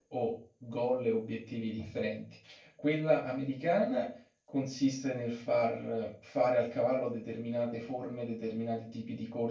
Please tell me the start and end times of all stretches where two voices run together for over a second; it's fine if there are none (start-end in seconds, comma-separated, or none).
none